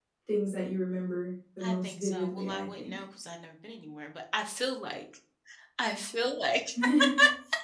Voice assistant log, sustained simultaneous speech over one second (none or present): present